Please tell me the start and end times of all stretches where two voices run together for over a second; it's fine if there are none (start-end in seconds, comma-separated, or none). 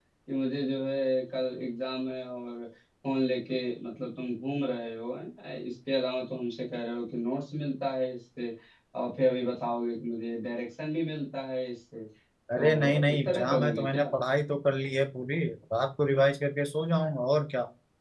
12.6-14.1